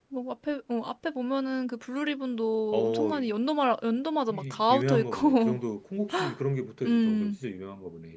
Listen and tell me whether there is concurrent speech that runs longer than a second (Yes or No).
Yes